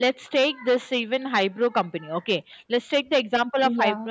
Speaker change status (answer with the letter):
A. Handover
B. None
B